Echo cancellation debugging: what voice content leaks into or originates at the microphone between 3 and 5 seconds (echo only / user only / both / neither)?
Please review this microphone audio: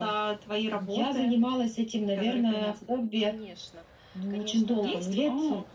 both